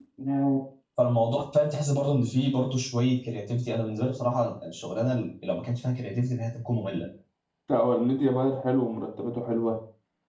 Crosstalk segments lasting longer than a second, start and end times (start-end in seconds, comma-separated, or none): none